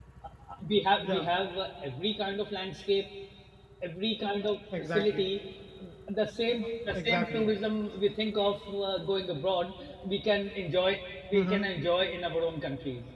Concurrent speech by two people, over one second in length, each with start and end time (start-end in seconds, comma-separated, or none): none